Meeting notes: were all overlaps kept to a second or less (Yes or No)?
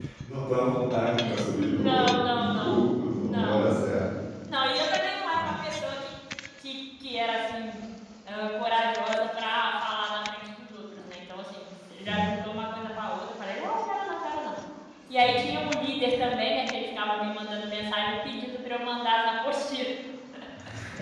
No